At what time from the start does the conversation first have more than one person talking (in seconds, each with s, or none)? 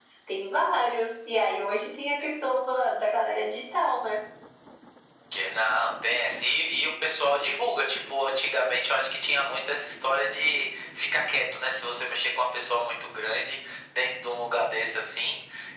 none